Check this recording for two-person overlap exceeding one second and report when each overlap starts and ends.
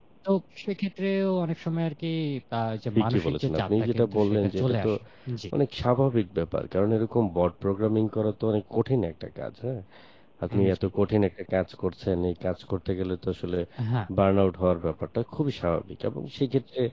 3.0-4.9

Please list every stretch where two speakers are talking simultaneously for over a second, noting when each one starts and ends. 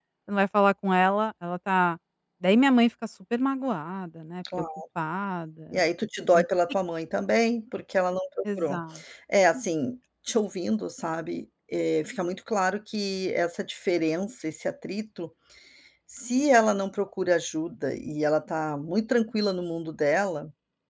none

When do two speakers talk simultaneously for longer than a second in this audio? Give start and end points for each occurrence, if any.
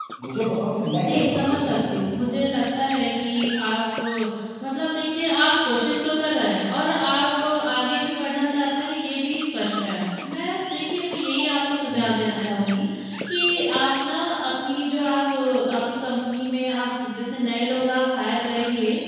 1.0-2.3

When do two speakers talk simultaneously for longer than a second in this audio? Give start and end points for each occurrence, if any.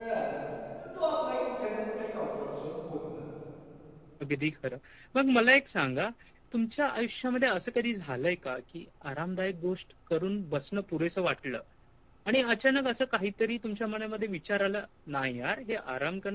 none

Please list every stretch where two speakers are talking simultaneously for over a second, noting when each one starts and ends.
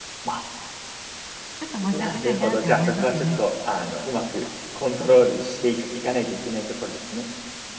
2.0-3.3

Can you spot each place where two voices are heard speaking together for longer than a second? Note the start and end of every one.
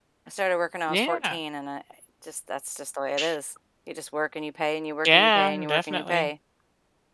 5.0-6.3

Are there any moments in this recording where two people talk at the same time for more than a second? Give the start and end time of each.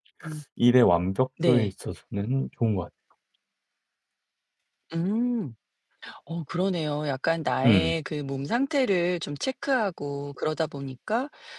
none

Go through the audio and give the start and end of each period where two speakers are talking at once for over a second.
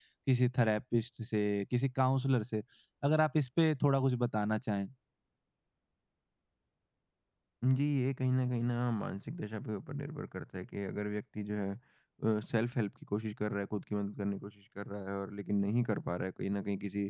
none

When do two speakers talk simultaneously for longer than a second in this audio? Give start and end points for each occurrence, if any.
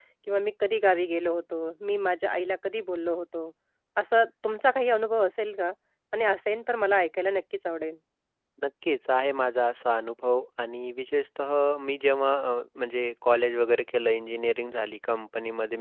none

